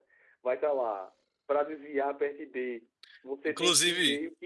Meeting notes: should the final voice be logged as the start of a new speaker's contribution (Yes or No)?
No